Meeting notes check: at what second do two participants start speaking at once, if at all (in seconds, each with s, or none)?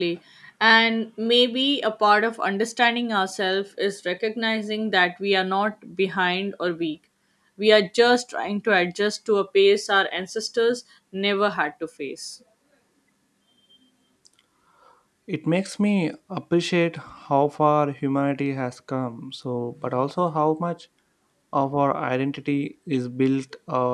none